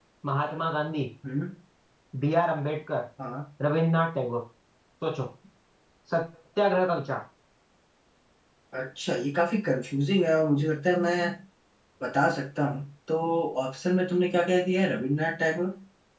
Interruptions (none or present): none